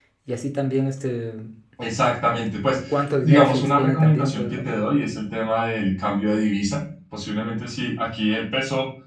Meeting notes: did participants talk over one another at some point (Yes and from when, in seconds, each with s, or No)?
Yes, from 3.2 s